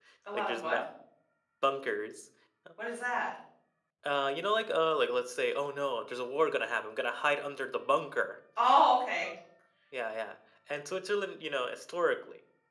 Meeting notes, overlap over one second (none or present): none